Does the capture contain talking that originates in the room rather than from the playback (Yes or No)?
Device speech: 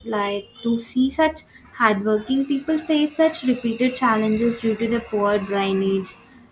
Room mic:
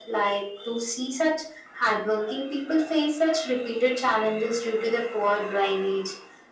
No